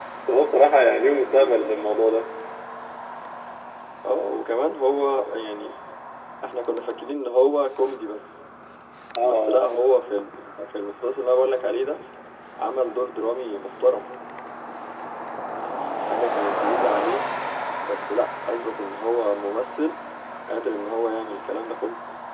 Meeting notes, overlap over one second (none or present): none